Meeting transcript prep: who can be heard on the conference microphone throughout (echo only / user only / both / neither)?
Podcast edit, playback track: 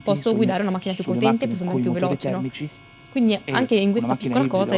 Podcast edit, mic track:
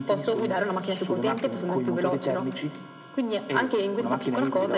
echo only